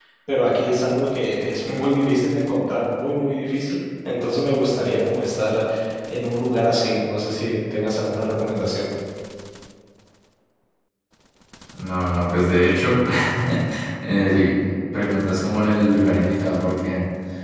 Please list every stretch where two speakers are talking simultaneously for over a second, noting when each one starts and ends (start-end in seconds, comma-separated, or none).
none